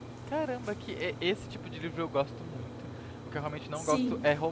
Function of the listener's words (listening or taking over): listening